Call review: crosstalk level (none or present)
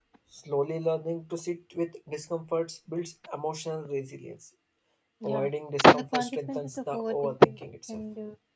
present